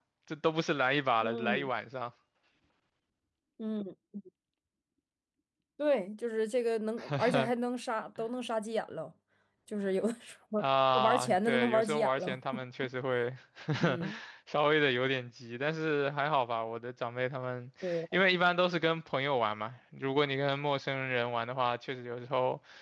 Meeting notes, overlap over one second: present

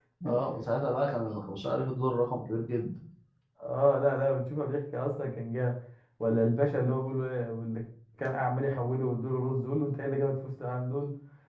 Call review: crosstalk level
none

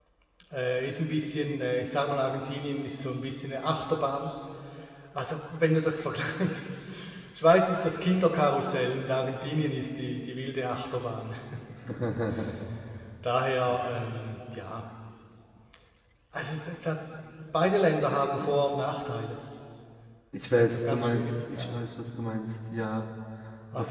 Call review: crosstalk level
present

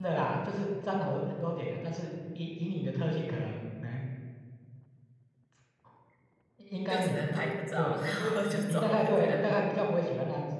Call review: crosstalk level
present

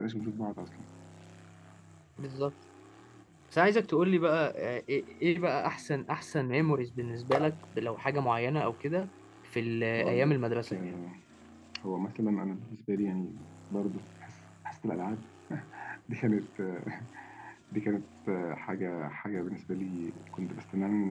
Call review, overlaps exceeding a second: none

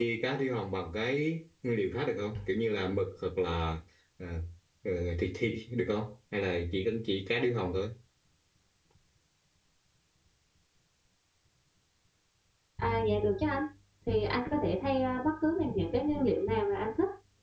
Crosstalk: none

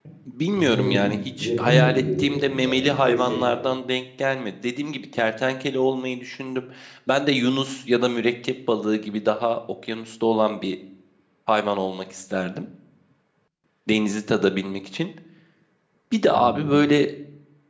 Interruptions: present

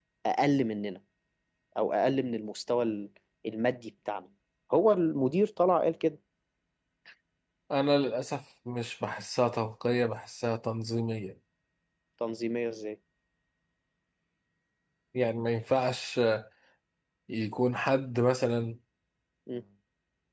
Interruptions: none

